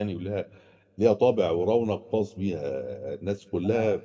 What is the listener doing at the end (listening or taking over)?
listening